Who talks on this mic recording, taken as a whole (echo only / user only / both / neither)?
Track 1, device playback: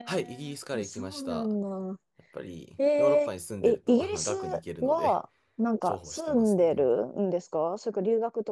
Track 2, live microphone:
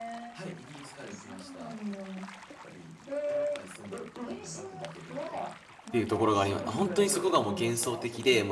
both